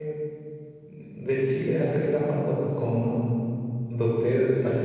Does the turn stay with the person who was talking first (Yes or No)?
Yes